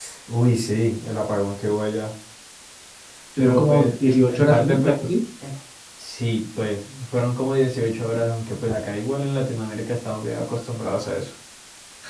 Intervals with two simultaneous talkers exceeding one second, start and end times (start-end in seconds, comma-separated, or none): 3.4-5.0